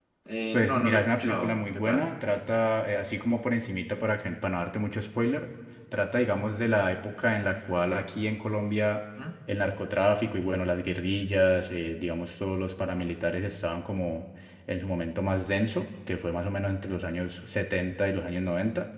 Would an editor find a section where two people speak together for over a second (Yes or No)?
Yes